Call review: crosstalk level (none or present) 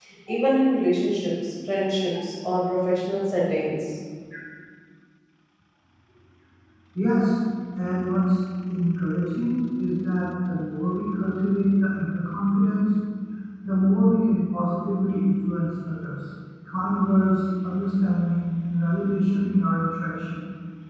none